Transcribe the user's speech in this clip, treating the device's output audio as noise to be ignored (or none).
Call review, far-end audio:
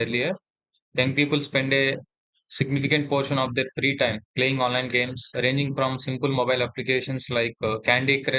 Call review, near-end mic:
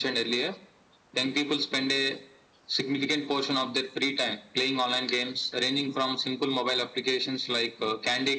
none